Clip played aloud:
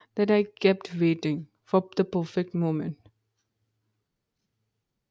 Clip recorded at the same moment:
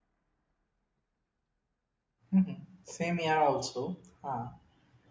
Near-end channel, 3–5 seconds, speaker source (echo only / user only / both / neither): user only